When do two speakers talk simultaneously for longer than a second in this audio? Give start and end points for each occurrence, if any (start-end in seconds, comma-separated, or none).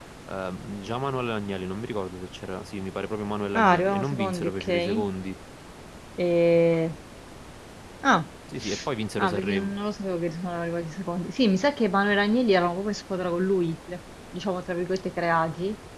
3.5-5.0